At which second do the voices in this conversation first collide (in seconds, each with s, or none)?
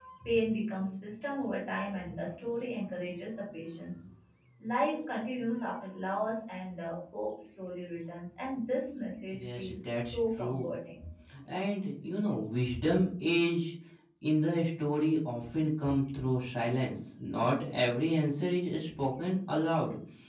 9.3 s